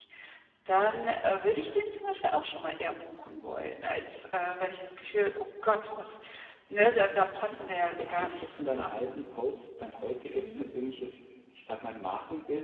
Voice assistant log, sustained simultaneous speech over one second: present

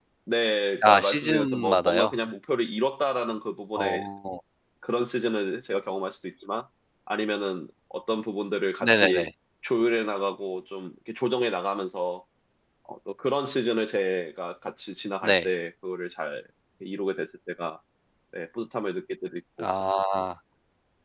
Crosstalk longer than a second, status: present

